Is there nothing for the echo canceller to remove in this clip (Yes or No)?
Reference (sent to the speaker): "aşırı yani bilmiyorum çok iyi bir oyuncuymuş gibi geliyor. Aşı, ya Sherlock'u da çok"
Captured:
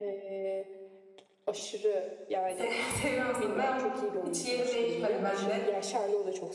No